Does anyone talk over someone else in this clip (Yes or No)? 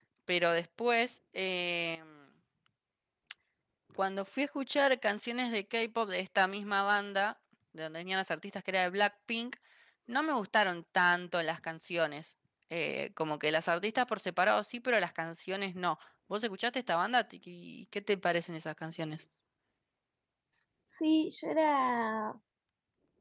No